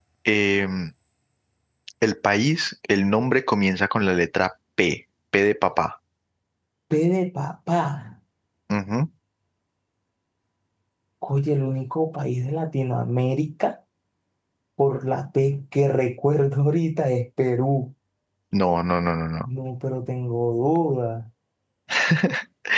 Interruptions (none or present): none